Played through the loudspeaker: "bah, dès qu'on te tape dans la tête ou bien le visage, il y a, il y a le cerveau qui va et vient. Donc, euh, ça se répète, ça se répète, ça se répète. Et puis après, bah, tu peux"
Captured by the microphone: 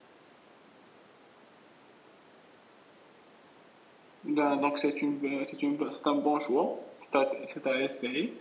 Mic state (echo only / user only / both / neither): user only